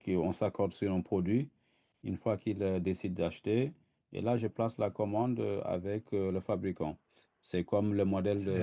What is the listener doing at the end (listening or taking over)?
listening